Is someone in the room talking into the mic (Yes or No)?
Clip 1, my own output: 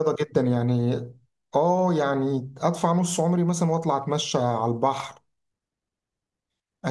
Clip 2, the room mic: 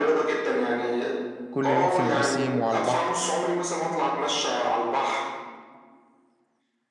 Yes